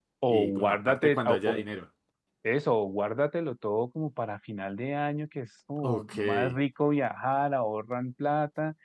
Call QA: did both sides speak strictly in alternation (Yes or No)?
No